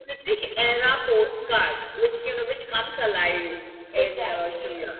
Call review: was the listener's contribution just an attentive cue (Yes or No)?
No